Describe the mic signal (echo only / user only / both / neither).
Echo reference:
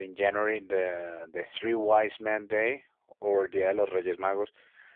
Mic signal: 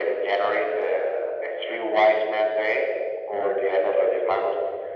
echo only